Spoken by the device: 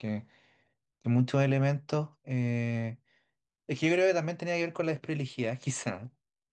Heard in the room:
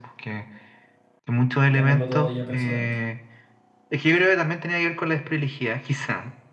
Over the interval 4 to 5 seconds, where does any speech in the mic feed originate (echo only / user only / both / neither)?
echo only